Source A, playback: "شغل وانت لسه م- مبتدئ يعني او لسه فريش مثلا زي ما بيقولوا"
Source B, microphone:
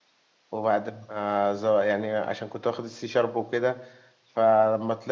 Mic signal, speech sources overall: user only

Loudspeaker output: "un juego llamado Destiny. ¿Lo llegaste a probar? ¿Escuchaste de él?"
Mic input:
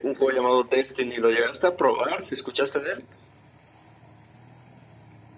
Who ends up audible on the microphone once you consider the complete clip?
echo only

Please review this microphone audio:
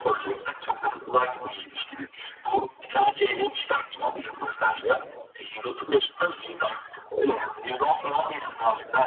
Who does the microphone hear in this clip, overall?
echo only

